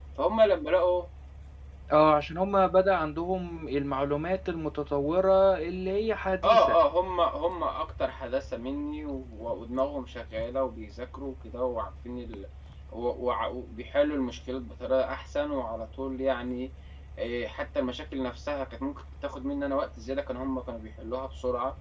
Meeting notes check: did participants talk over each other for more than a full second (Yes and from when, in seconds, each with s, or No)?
No